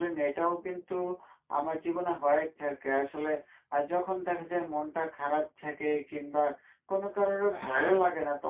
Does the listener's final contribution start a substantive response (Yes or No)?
No